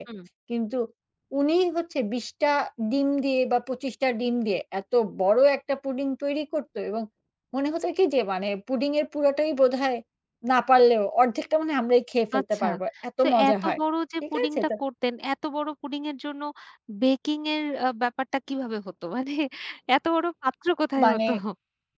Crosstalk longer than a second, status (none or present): none